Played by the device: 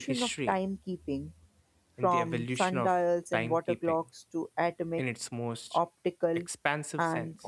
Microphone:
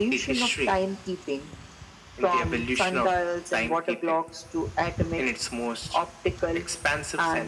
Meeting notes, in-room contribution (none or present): none